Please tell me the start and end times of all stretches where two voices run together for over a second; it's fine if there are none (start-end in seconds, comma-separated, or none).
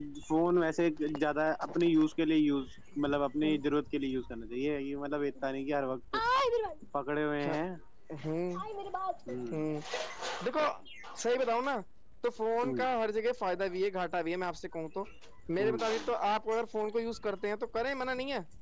none